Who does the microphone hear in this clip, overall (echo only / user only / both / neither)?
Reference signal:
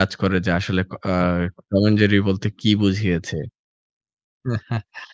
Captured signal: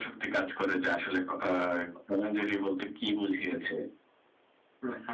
echo only